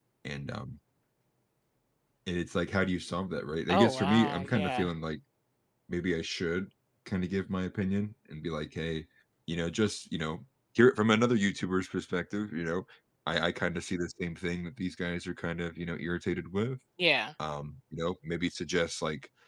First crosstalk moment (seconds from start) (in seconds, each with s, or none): 3.7 s